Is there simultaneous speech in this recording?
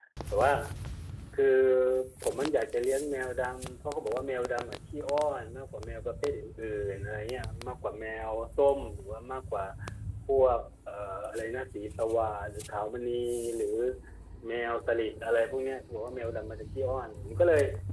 No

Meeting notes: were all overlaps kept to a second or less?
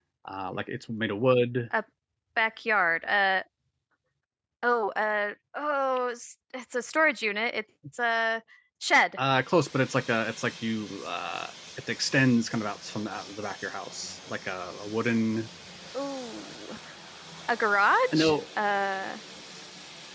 Yes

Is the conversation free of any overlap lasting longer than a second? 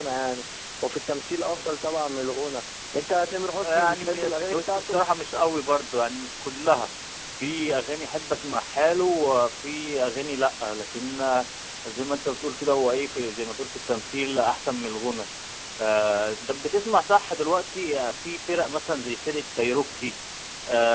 No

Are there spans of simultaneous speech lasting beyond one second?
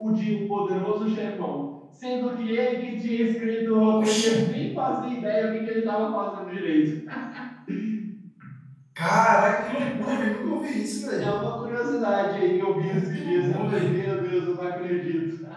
Yes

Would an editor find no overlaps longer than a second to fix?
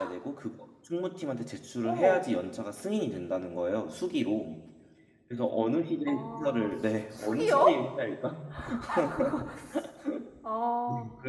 No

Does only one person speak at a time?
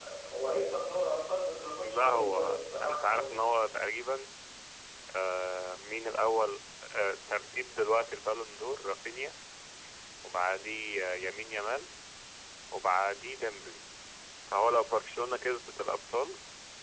No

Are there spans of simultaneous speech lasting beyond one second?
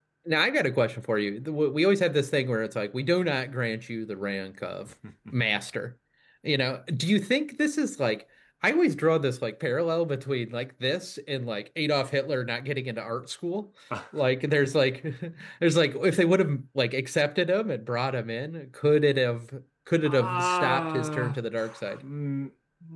Yes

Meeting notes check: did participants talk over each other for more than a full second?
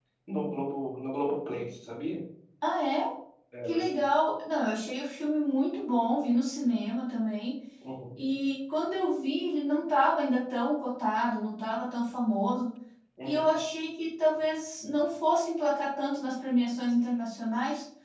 No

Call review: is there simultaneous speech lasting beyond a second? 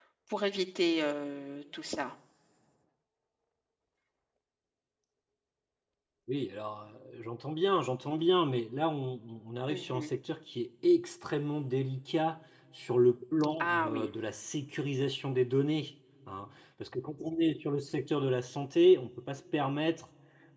No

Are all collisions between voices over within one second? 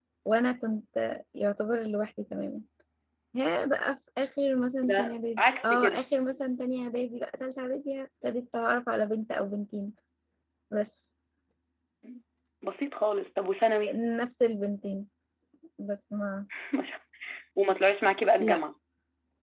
No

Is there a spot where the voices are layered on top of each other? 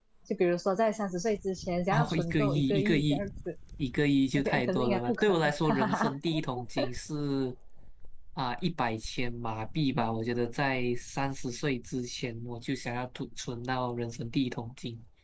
Yes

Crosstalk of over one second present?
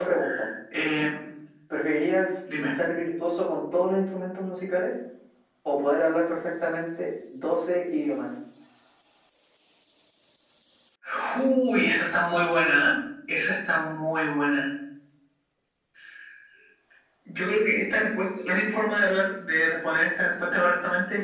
No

